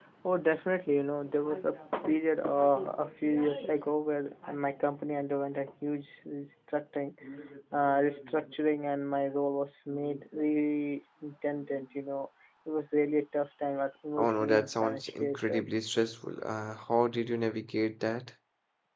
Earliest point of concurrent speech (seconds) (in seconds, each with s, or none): 14.2 s